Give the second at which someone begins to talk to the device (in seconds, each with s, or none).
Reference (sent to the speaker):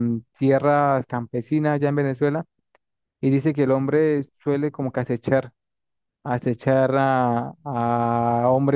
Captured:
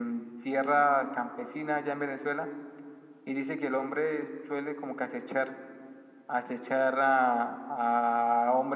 none